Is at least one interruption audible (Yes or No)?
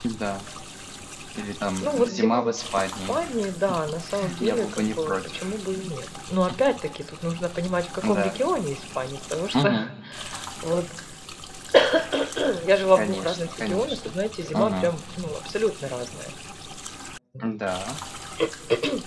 Yes